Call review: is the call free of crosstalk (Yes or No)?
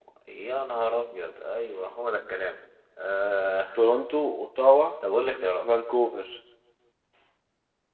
Yes